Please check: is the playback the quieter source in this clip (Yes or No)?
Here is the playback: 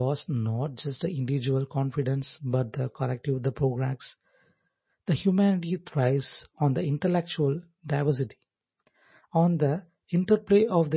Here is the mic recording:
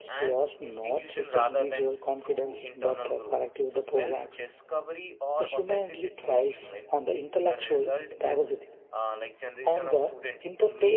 No